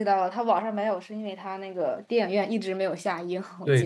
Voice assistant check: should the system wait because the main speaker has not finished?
No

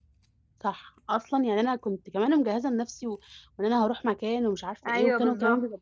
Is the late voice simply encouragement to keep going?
Yes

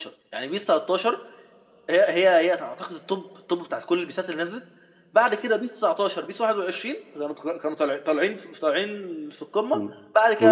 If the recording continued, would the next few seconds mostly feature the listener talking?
Yes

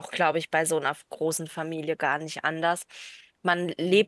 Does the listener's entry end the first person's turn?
No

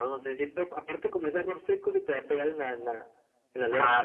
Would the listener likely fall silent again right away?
No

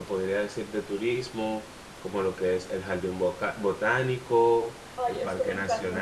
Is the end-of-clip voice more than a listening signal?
Yes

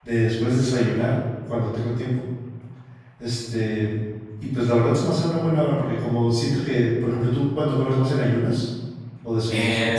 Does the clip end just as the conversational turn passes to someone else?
Yes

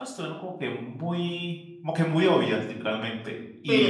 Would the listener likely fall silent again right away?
Yes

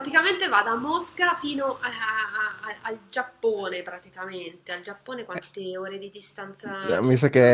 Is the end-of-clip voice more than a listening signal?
Yes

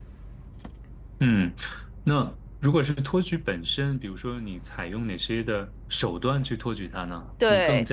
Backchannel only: Yes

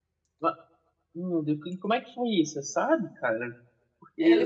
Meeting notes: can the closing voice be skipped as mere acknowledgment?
Yes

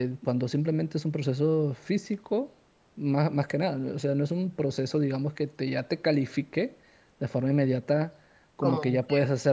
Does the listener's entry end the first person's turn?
No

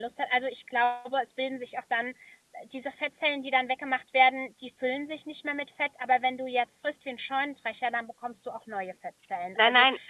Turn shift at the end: No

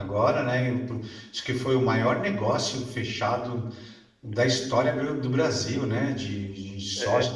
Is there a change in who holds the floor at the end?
Yes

